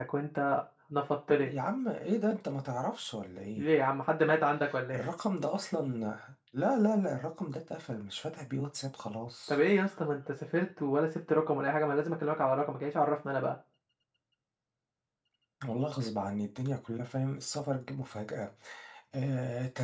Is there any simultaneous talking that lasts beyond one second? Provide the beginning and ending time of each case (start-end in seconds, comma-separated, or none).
none